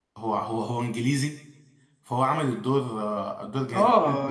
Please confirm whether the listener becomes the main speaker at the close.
Yes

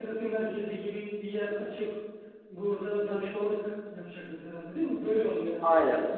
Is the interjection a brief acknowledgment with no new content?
No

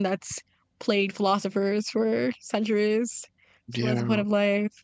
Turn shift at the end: No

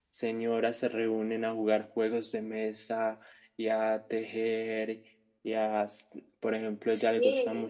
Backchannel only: Yes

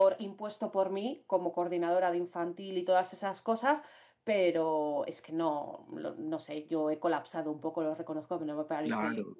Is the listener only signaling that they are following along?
No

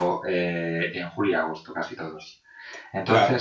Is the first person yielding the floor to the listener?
No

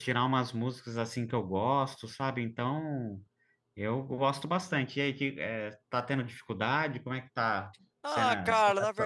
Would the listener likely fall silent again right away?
No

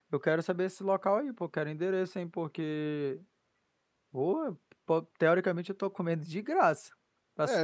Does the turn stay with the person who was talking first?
No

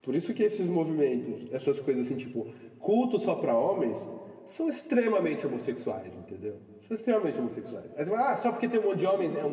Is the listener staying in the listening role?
Yes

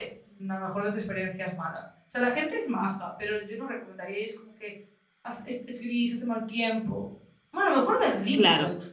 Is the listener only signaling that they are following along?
No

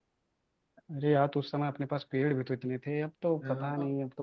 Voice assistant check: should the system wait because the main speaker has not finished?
No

